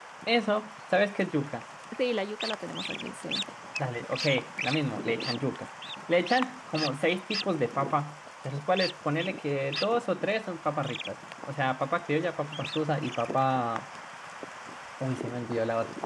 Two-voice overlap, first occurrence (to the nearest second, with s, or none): none